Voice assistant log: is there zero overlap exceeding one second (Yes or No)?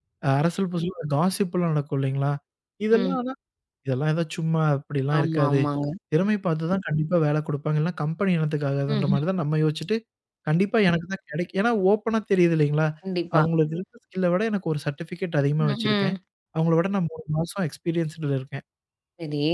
Yes